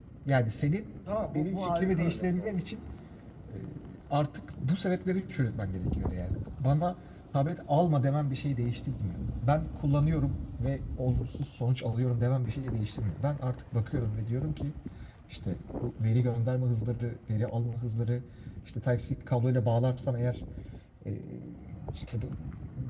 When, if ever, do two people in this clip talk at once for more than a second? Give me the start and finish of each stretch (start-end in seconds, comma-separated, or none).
1.3-2.7